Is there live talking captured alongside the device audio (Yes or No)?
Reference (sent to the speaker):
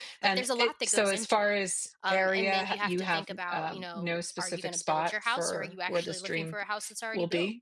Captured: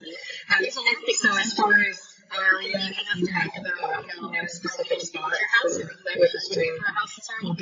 No